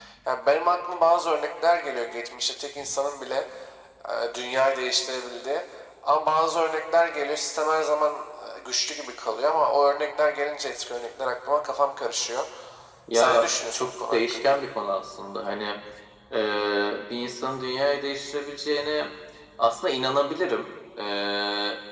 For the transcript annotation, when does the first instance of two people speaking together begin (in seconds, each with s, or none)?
13.1 s